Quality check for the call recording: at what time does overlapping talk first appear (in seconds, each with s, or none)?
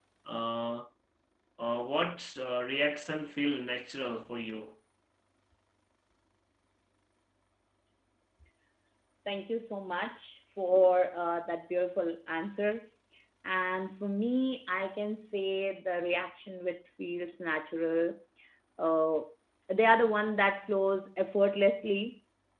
none